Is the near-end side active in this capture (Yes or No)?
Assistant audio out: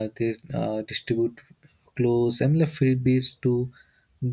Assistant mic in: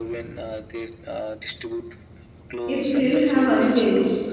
Yes